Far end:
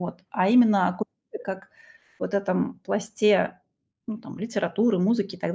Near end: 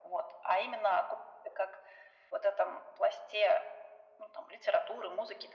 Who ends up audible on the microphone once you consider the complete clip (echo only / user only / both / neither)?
echo only